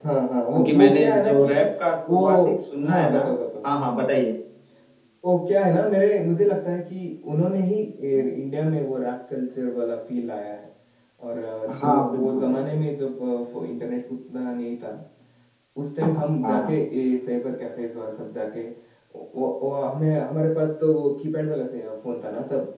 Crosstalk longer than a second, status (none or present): present